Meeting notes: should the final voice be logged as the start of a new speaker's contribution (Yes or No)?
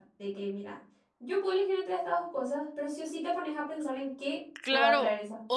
Yes